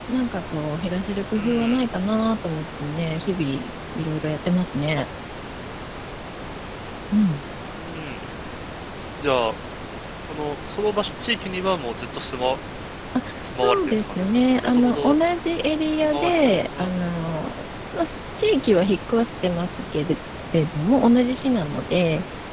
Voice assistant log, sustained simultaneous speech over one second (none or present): present